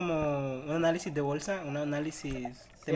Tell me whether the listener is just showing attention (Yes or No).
No